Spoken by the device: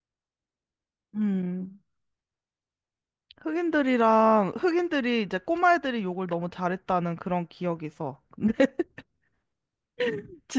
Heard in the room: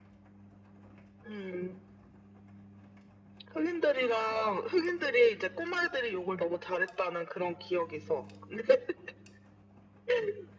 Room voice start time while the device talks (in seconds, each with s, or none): none